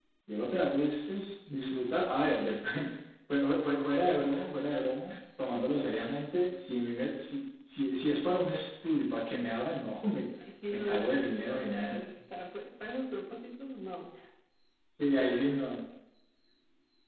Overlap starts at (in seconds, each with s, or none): 10.7 s